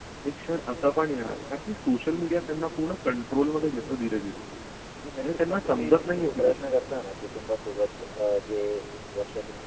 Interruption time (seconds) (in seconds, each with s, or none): 5.2 s